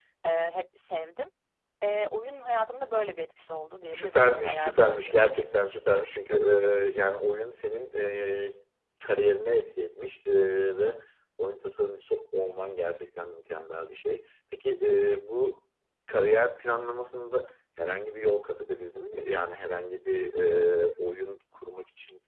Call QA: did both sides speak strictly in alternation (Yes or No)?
No